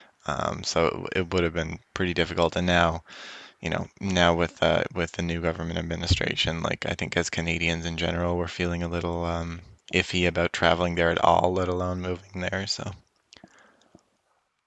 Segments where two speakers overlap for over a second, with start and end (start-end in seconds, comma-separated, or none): none